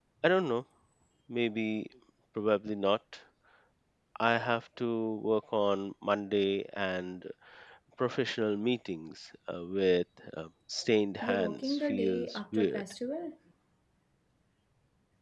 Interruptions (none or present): present